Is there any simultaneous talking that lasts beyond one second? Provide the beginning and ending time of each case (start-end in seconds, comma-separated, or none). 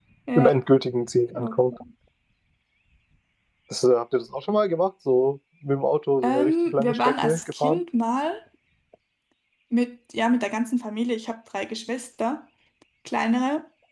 6.2-7.8